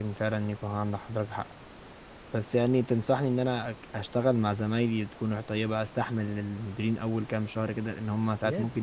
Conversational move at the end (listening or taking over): listening